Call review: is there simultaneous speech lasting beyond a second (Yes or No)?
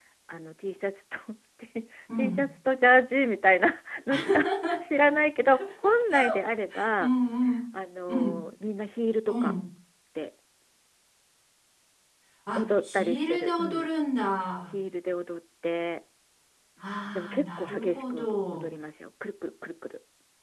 Yes